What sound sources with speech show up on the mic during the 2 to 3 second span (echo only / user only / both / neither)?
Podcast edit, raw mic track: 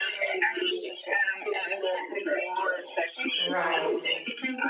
echo only